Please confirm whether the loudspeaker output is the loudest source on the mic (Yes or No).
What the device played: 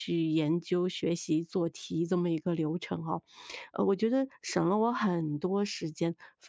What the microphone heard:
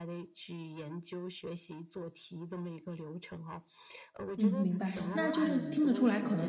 No